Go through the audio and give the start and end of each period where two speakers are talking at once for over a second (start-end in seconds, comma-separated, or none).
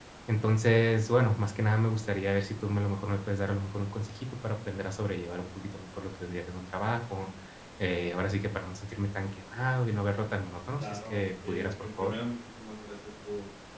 10.8-12.1